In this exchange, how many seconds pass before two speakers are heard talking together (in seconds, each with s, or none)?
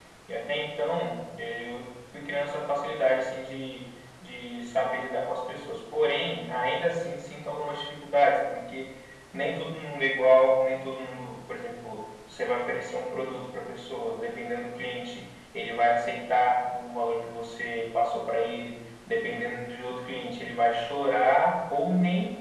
none